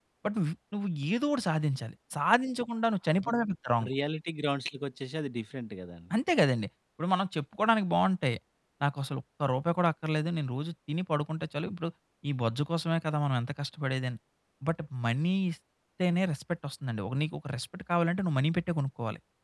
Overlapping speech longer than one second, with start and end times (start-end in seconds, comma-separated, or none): none